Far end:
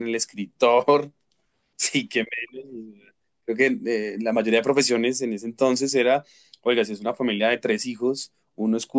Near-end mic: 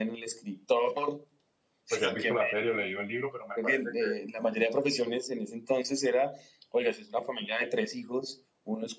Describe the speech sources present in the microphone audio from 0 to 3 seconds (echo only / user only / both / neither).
both